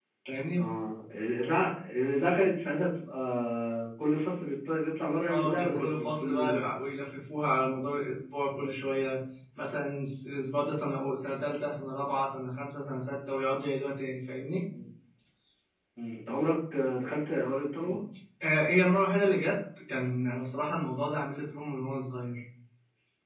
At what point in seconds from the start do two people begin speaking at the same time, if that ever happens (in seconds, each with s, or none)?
5.3 s